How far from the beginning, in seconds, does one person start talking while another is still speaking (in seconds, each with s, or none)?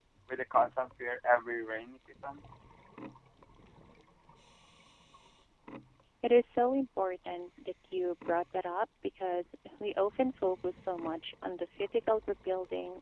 none